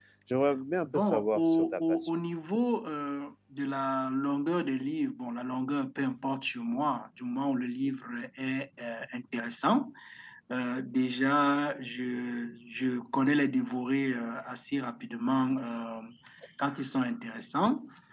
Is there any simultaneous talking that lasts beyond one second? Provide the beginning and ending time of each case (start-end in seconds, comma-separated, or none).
0.8-2.2